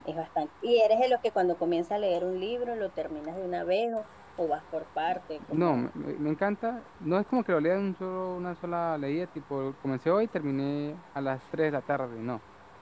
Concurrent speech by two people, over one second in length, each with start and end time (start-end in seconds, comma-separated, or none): none